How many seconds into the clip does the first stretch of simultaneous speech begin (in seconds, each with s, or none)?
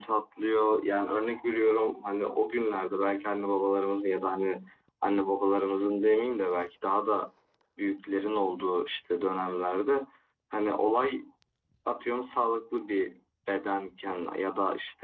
none